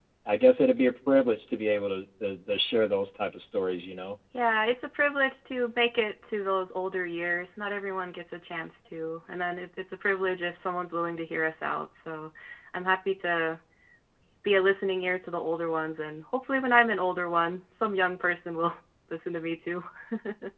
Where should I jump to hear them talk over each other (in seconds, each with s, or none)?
none